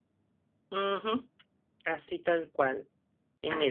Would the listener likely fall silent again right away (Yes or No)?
Yes